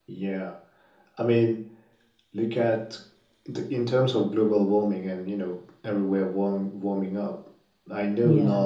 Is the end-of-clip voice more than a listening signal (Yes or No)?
No